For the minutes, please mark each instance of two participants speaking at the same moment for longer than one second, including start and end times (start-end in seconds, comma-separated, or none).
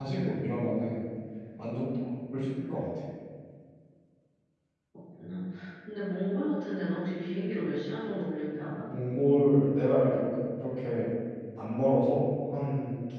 none